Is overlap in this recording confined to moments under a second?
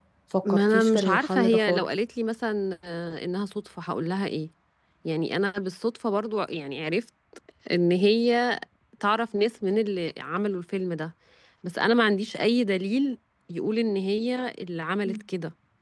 No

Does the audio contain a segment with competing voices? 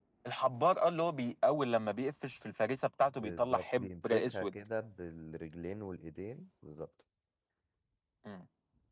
Yes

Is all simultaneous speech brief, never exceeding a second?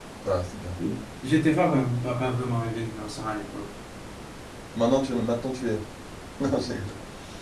Yes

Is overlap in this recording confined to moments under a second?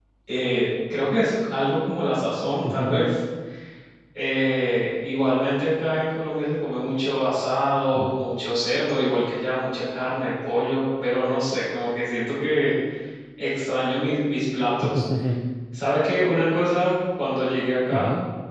Yes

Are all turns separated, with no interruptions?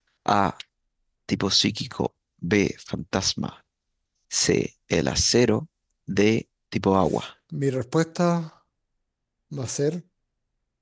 Yes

